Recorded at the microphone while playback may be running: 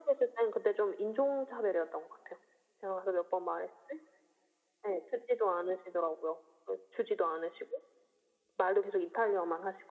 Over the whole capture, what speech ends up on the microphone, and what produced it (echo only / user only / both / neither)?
echo only